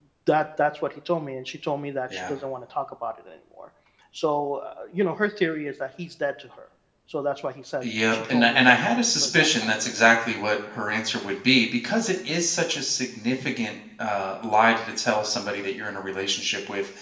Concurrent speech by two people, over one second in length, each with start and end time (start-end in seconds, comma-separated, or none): 7.8-10.0